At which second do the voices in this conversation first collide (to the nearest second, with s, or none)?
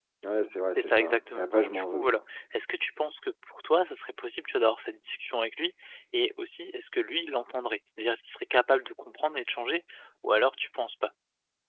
1 s